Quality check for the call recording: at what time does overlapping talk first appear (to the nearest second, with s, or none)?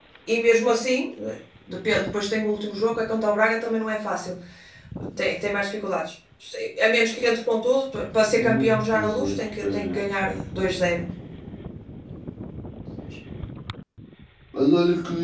8 s